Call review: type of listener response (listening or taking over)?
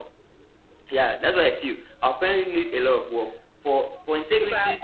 taking over